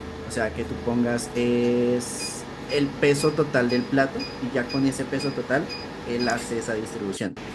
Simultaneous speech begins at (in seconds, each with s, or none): none